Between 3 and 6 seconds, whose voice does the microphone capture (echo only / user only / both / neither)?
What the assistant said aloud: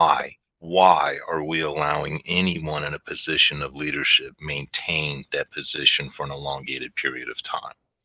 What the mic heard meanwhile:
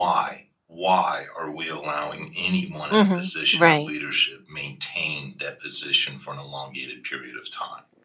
both